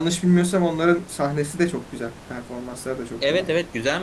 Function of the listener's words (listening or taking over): taking over